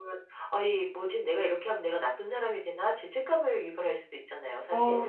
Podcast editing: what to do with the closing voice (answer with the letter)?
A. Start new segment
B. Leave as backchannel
A